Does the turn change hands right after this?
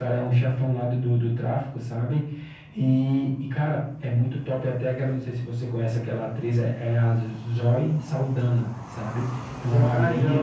Yes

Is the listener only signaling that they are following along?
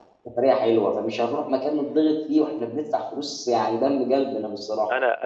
No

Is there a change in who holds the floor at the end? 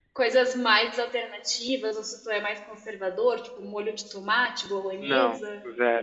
Yes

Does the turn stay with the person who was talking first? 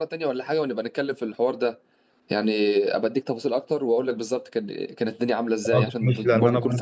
No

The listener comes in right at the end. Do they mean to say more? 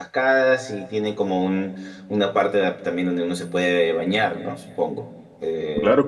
Yes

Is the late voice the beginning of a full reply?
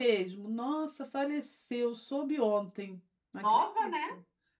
No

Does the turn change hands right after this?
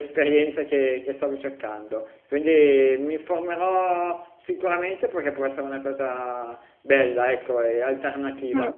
No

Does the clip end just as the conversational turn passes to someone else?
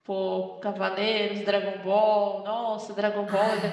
No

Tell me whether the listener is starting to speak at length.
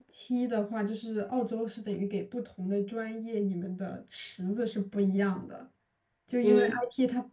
No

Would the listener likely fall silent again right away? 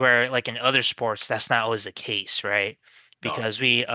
Yes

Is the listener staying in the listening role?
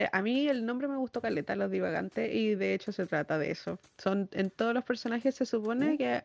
Yes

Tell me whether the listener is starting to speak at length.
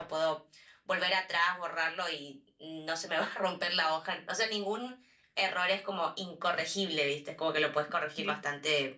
No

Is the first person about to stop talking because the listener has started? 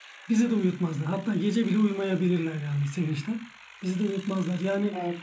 No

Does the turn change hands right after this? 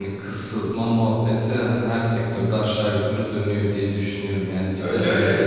No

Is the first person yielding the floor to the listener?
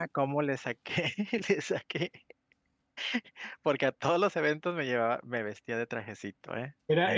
Yes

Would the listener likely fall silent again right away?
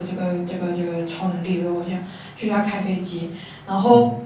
Yes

